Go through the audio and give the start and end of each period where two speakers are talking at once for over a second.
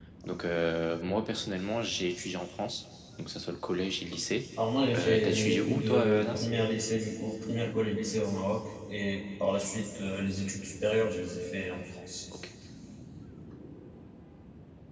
4.9-6.5

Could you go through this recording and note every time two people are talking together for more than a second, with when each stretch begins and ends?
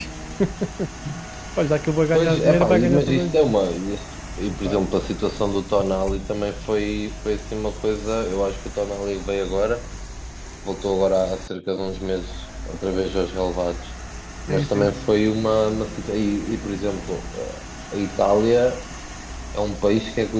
2.1-3.6

